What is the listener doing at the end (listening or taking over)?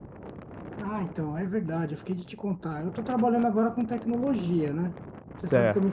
listening